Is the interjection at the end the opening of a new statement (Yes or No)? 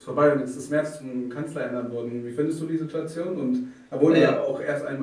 No